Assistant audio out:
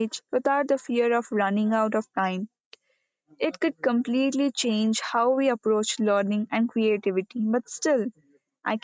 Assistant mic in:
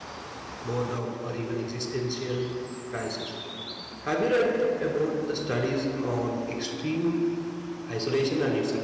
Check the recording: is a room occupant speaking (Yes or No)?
Yes